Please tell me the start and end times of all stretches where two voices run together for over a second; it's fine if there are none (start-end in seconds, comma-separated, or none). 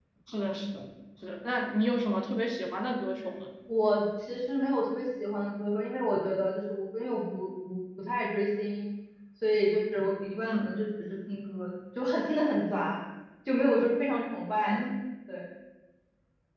none